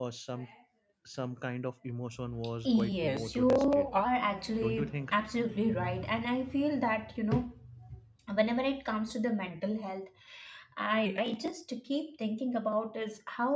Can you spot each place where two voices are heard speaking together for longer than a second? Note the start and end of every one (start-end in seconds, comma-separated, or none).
2.6-3.9